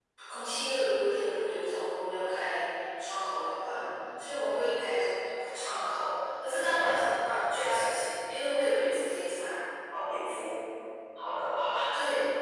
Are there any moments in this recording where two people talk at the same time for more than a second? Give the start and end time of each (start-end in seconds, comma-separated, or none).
none